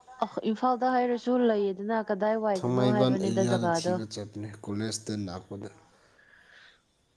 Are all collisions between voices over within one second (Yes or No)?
No